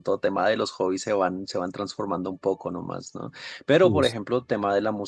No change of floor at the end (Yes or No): Yes